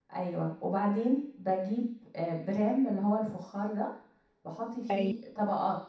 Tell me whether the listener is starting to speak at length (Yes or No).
No